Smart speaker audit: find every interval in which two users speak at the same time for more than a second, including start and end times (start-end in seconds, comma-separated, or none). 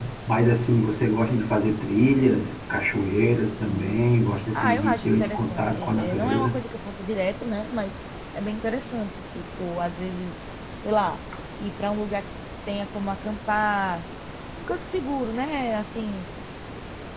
4.5-6.6